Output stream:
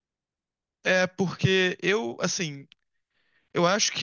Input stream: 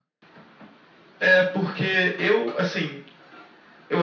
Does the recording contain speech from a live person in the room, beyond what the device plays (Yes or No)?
No